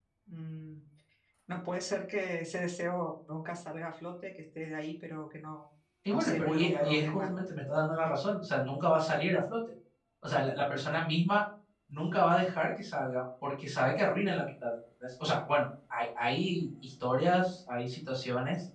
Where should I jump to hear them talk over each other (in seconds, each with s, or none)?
6.1 s